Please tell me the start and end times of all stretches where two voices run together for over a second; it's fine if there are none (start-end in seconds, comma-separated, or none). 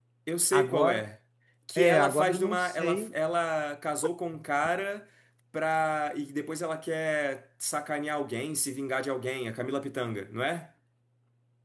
1.8-3.1